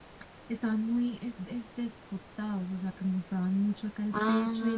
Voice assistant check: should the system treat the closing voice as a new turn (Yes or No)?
No